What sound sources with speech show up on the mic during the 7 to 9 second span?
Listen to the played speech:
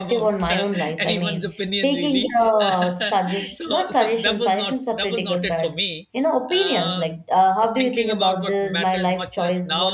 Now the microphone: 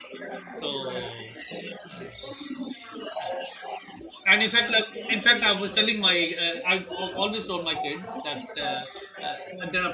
both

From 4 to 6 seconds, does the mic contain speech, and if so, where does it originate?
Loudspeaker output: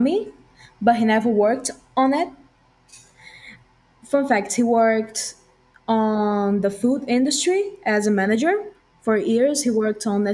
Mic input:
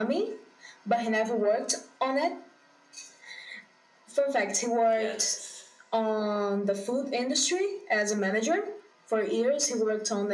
both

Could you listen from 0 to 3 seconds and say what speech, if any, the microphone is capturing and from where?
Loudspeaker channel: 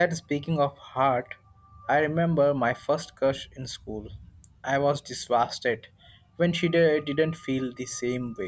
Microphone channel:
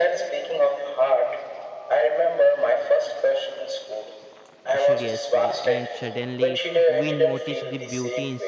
echo only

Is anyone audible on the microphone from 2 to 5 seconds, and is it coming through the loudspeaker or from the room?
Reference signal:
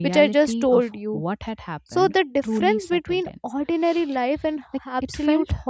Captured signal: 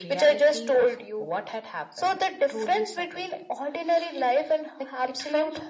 echo only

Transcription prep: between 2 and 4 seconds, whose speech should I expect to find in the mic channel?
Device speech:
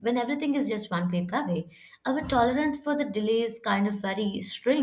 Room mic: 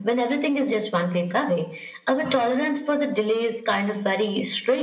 echo only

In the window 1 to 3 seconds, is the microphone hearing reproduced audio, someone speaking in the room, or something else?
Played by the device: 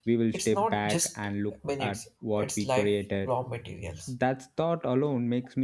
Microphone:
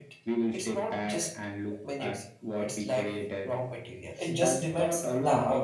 echo only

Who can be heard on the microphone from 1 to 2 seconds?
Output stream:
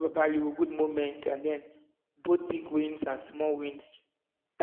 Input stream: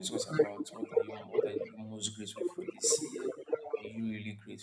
both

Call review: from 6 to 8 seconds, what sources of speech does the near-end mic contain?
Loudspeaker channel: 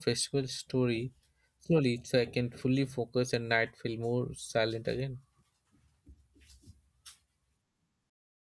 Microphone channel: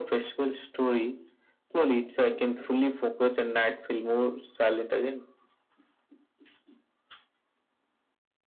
neither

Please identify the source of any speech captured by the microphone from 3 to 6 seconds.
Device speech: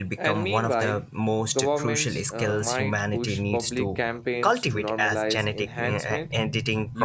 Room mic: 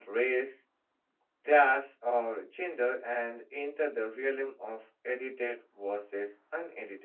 user only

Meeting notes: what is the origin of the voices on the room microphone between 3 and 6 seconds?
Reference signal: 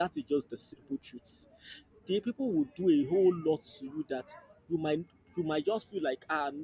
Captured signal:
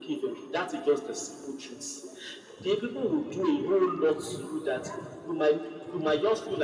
echo only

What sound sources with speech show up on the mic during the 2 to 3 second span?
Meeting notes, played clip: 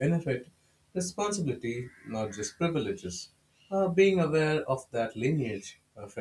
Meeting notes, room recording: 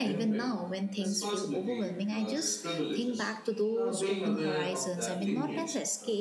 both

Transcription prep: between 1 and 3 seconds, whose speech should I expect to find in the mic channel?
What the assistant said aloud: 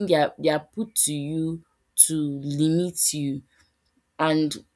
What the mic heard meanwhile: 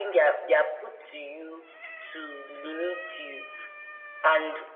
echo only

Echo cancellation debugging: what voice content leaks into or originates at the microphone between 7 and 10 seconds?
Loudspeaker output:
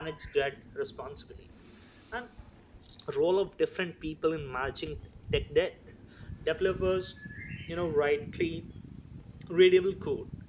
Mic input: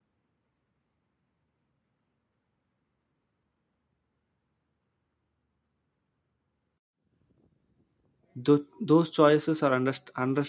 user only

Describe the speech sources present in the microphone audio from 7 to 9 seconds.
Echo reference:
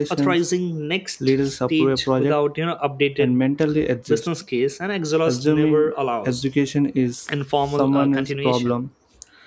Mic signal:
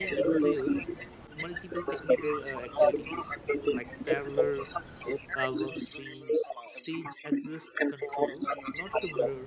both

